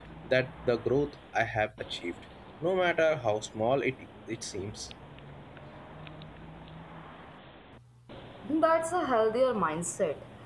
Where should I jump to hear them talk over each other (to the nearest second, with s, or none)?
none